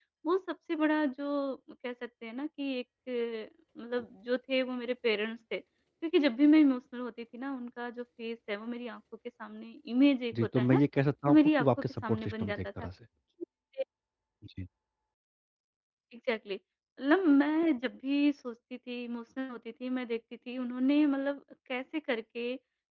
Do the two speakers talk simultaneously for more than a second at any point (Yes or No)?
Yes